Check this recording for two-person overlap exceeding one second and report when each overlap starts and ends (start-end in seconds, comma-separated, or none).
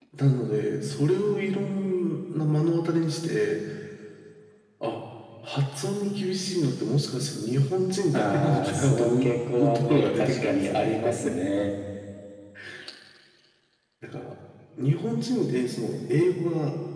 8.1-11.1